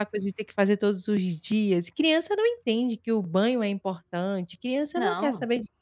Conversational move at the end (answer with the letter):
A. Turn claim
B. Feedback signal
B